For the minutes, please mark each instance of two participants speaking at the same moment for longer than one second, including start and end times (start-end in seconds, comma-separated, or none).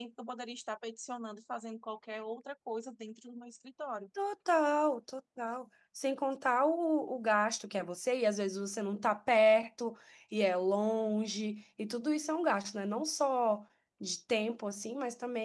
none